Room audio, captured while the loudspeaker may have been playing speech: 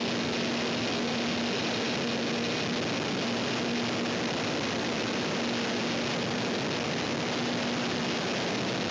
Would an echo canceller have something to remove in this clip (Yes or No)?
No